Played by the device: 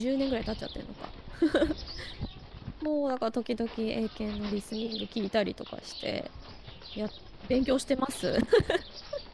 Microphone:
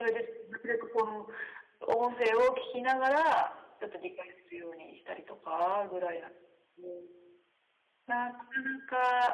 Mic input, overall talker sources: user only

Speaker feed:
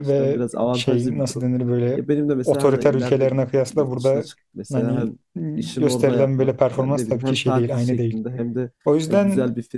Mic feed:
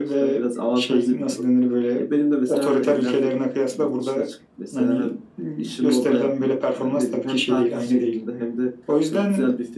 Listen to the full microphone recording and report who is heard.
echo only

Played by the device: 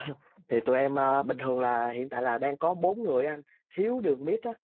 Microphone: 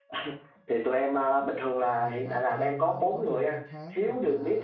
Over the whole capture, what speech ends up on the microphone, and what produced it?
both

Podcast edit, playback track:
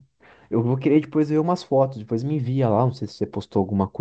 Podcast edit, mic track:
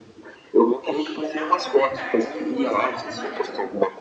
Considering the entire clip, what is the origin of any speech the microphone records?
both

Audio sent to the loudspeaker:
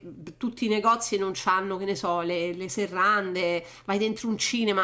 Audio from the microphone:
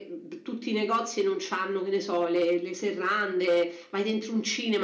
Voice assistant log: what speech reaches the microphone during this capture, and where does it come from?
echo only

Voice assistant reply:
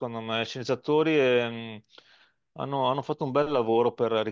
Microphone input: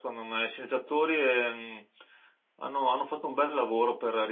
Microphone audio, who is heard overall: echo only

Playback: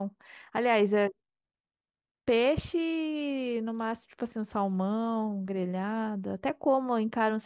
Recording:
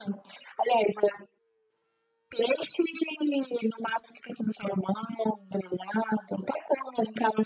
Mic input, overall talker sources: echo only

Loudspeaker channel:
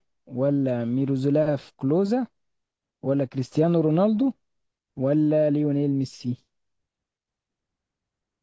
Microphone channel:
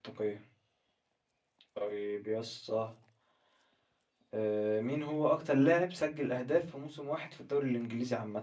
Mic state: user only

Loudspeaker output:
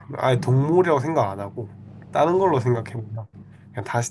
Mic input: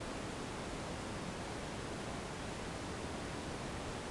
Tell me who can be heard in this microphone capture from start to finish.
neither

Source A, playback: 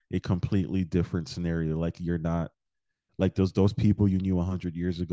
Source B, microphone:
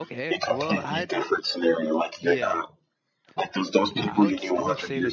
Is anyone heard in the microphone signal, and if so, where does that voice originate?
both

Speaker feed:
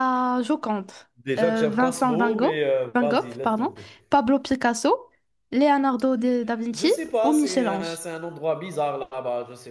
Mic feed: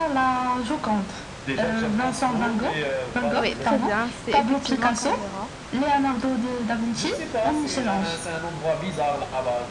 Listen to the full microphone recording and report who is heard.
both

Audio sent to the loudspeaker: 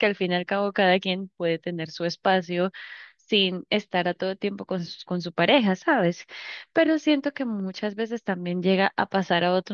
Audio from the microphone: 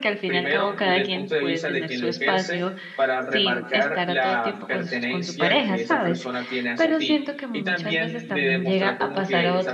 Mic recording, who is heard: both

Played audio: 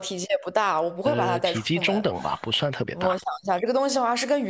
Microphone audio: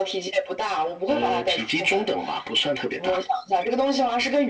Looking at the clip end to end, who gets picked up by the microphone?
echo only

